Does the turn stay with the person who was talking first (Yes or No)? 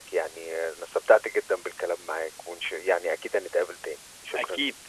No